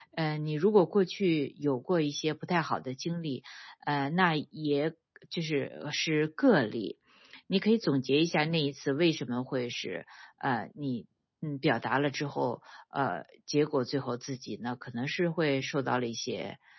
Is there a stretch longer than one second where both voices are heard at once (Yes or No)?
No